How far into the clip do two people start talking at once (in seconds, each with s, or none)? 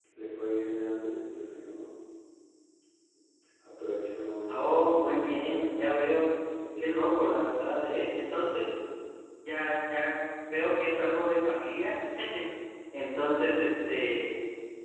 4.5 s